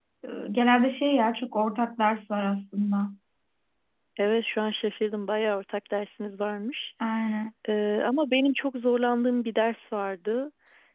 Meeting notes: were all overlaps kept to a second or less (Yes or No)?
Yes